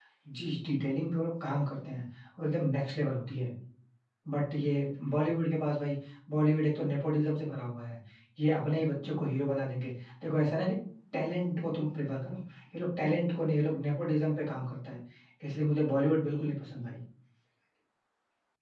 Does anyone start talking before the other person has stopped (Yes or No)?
No